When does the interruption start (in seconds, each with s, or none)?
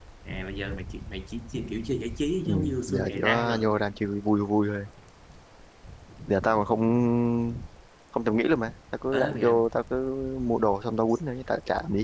2.5 s